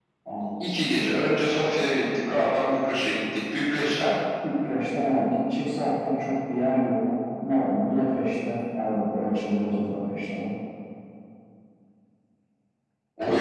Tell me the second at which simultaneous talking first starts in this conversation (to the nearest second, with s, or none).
none